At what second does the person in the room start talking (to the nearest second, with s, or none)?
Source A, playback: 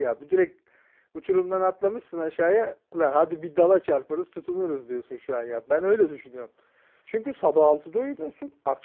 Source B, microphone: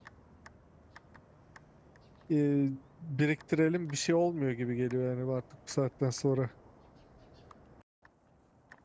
2 s